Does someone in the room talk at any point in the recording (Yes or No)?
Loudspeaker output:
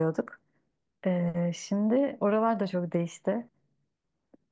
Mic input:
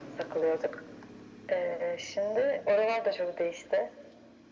No